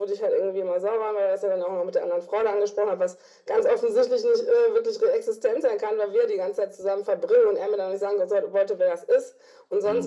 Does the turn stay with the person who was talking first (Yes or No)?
Yes